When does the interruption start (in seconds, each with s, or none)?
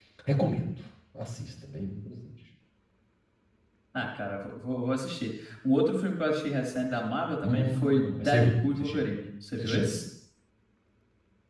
7.4 s